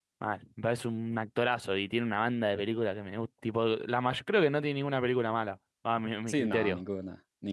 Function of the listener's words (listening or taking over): taking over